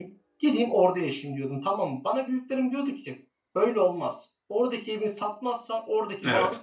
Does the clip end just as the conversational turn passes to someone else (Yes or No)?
No